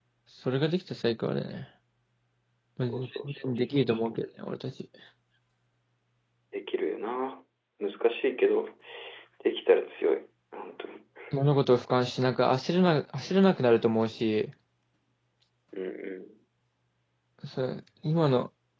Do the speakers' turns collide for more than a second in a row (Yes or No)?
Yes